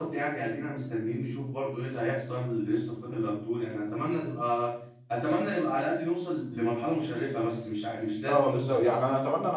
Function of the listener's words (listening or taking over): taking over